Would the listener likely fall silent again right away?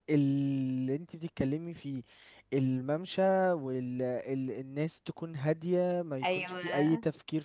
Yes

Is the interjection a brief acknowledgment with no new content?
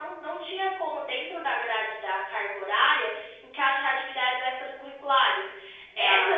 Yes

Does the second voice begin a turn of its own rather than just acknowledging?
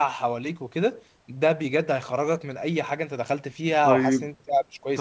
Yes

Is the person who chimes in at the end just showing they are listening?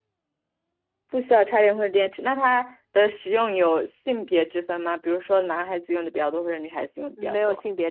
No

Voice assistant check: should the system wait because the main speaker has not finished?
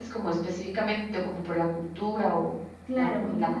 No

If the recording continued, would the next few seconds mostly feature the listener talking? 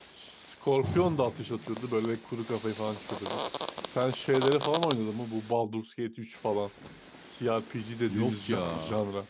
No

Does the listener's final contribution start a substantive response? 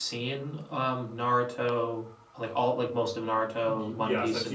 Yes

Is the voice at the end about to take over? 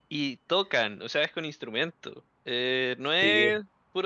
No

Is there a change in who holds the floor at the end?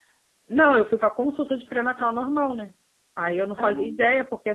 No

